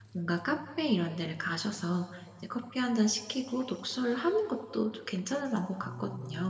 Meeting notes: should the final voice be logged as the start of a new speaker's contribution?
Yes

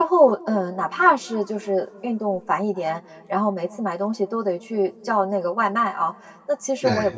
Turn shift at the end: No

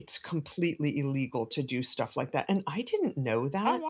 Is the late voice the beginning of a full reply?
No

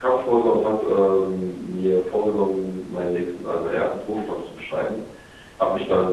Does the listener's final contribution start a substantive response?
No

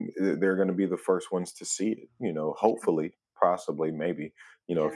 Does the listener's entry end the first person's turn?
No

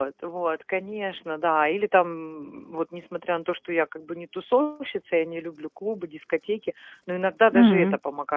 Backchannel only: Yes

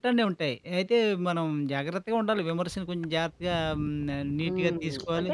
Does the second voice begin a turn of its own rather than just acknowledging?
Yes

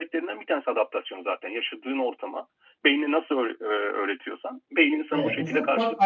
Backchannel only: No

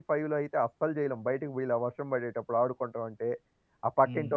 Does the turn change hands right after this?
Yes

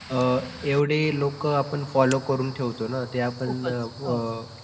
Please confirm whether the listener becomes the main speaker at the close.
No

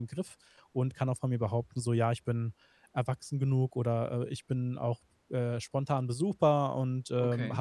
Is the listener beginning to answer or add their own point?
No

